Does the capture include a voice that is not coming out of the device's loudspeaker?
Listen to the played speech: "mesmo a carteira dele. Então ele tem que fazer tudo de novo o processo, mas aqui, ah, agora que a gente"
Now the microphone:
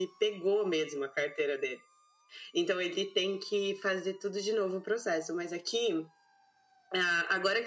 No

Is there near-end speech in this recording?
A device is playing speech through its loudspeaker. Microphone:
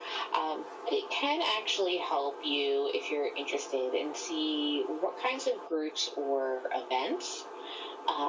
No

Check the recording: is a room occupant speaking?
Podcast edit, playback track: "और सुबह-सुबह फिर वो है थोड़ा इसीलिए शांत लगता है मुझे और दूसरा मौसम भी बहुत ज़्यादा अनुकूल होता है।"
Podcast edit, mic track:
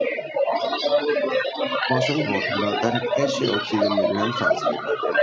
Yes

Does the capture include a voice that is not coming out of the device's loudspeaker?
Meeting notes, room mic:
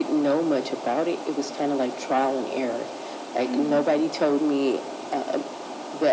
Yes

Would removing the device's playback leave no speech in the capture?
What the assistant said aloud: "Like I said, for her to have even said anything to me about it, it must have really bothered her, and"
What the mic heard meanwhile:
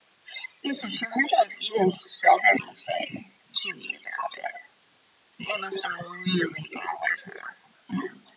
Yes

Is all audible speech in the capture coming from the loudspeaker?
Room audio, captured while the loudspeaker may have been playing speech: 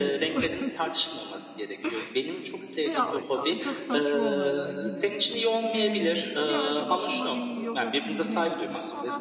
No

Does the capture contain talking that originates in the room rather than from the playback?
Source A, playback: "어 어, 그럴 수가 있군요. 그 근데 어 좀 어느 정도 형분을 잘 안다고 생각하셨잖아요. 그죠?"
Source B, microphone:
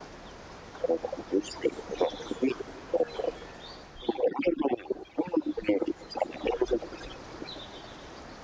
No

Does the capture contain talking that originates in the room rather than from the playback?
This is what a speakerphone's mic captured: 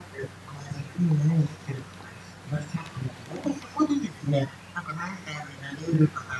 No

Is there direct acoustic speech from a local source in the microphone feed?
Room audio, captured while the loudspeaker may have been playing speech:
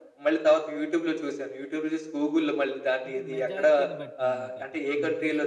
Yes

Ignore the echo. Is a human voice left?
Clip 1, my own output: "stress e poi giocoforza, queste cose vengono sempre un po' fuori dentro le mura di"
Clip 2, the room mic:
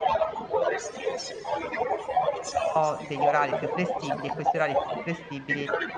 Yes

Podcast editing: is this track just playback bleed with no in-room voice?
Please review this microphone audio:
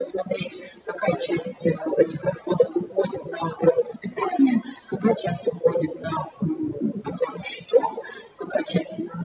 Yes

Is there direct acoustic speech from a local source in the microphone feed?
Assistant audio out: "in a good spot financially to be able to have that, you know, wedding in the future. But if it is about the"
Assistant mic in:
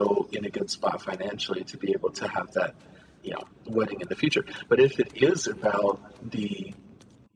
No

